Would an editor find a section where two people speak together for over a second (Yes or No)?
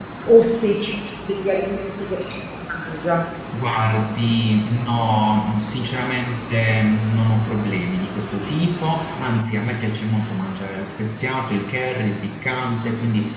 No